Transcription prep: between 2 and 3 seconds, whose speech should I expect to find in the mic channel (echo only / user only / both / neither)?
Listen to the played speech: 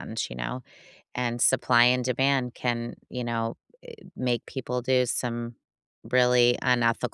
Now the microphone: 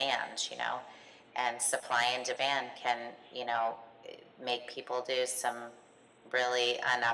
echo only